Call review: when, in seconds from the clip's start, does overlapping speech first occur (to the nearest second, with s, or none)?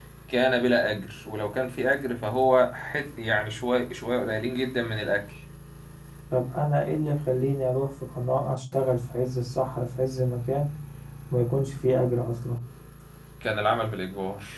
none